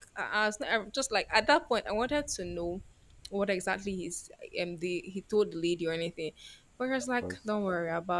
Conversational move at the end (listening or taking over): listening